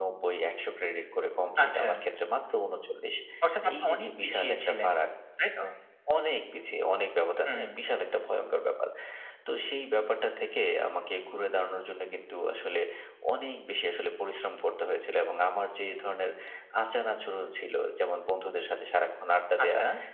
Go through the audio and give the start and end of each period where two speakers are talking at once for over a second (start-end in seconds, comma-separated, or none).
3.6-4.9